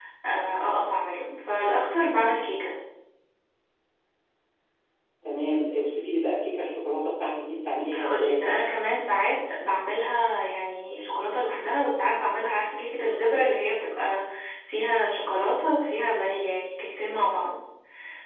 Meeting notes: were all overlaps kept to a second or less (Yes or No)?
Yes